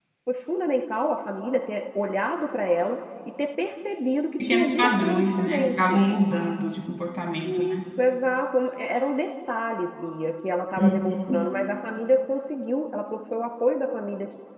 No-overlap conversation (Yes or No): No